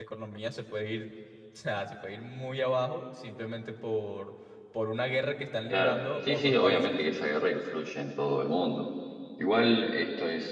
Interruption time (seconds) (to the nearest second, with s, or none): 6 s